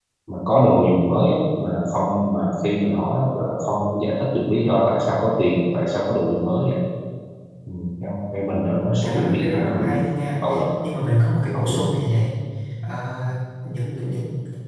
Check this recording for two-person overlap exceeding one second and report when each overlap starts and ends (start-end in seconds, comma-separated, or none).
8.7-9.9